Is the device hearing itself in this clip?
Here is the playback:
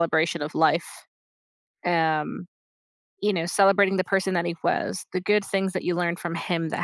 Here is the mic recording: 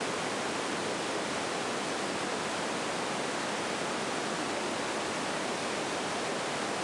No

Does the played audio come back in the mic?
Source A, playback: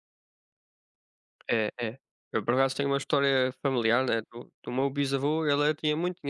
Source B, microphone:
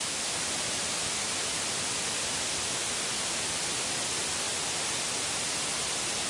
No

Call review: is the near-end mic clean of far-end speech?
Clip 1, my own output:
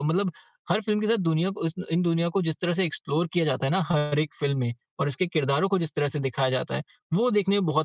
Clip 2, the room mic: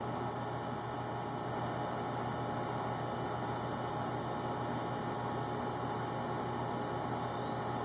Yes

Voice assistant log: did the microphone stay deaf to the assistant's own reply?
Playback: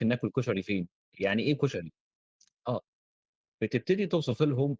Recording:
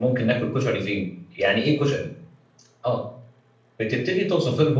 No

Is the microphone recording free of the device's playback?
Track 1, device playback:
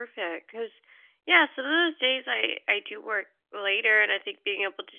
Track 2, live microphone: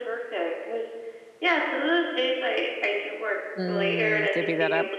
No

